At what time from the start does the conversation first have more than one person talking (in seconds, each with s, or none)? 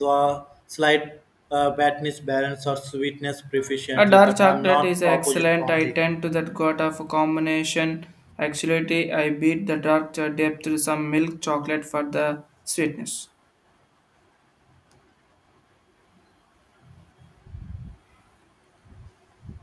4.0 s